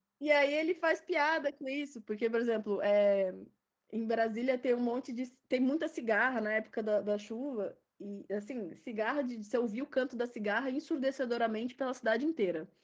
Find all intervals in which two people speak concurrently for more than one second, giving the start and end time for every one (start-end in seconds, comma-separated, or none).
none